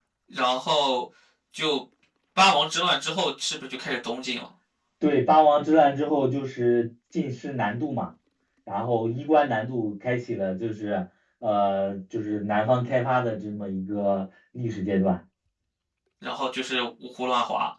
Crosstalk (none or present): none